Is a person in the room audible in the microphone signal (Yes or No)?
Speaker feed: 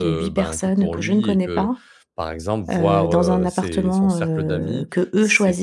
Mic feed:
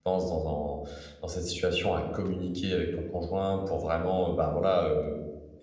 Yes